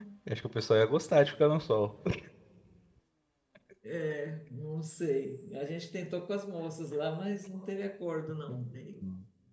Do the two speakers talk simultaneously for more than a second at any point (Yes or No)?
No